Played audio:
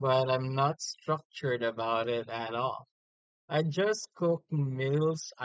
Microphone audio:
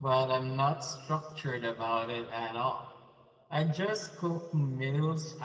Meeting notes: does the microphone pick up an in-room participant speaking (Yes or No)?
No